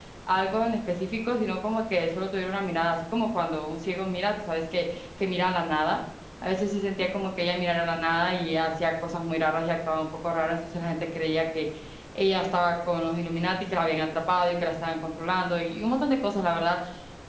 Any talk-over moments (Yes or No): No